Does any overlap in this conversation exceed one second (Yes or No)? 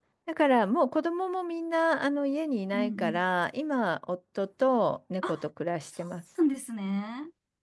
No